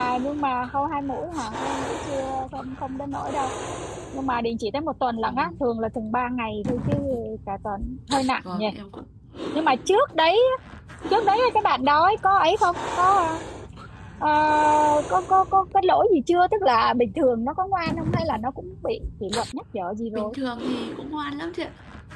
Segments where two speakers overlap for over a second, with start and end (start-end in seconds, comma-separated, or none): none